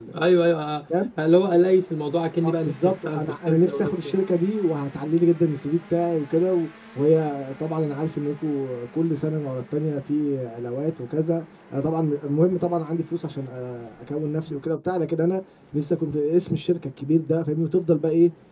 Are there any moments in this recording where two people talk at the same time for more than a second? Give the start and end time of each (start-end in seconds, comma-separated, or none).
2.4-4.2